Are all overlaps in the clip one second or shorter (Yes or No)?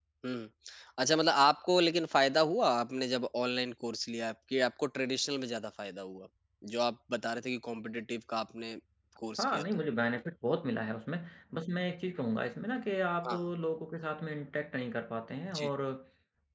Yes